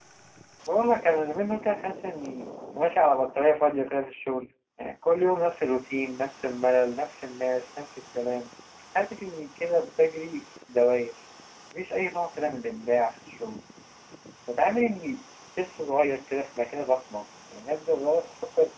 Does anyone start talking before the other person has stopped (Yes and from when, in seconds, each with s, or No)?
No